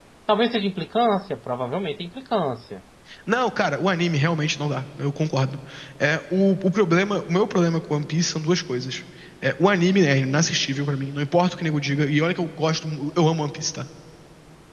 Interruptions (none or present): none